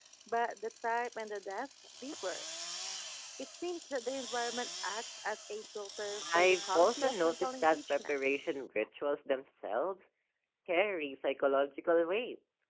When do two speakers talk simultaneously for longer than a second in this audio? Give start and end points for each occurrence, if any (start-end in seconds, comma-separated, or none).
6.3-8.1